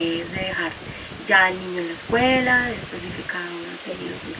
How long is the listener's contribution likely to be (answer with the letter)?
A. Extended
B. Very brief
B